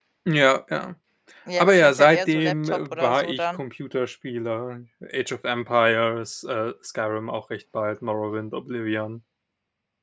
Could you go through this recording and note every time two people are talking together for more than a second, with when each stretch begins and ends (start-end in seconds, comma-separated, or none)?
1.6-3.6